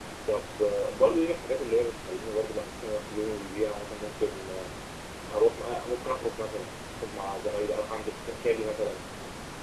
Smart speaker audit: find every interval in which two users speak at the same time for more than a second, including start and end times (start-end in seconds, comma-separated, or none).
none